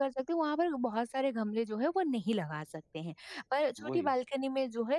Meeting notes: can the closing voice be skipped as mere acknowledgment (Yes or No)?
Yes